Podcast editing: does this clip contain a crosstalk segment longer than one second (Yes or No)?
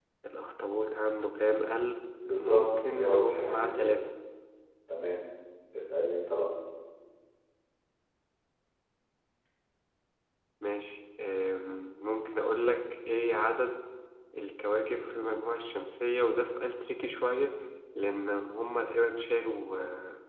Yes